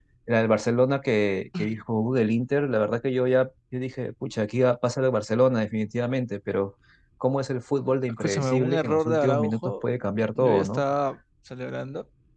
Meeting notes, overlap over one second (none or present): present